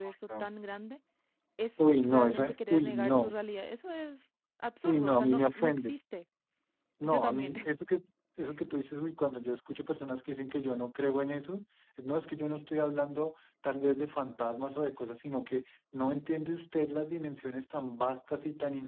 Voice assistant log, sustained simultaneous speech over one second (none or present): present